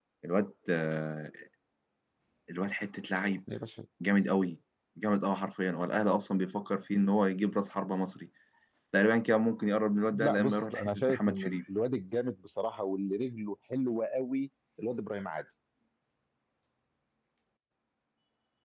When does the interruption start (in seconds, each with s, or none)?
10.1 s